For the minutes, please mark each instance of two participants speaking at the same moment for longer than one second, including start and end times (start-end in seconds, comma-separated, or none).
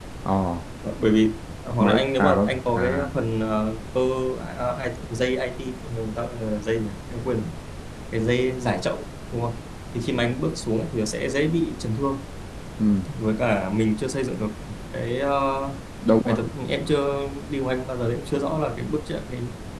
1.8-3.1